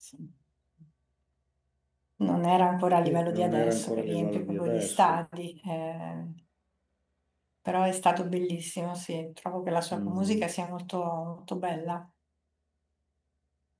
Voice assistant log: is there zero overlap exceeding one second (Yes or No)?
No